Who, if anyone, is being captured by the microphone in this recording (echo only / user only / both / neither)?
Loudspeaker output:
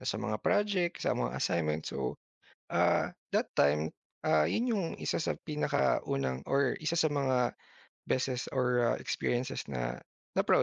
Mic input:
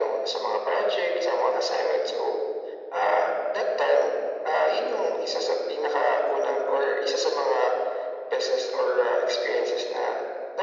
echo only